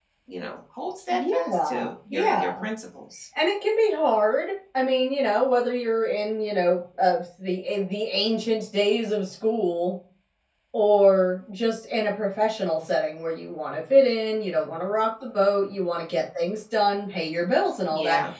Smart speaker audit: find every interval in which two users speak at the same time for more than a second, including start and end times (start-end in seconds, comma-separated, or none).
1.1-2.6